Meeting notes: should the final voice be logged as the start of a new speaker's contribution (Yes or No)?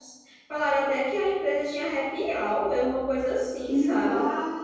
Yes